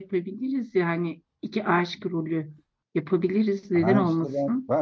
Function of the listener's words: taking over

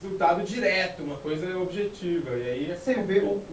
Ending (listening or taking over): taking over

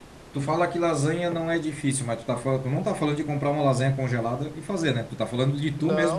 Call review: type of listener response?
taking over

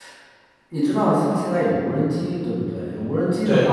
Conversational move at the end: listening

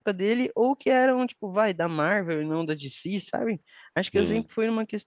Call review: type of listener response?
listening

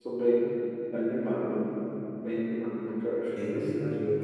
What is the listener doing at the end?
taking over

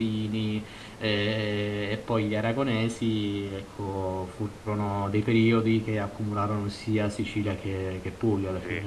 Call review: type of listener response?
taking over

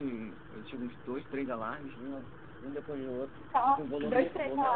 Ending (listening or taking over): taking over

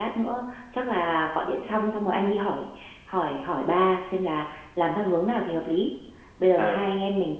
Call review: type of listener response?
listening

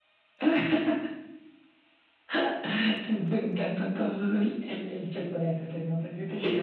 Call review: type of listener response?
taking over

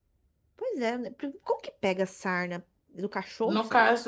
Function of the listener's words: taking over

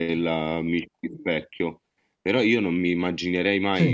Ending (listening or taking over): listening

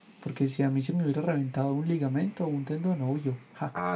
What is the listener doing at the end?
taking over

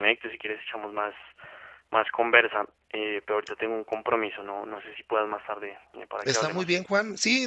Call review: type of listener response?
taking over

